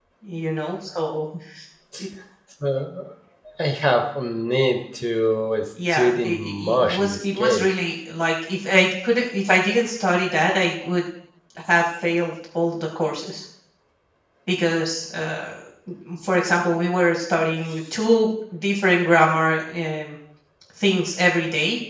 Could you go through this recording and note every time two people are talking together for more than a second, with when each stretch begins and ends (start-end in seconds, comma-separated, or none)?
5.9-7.7